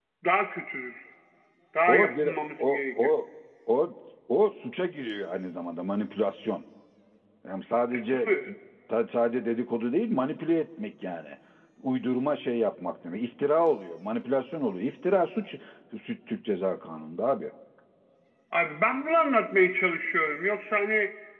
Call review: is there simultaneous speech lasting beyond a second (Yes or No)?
Yes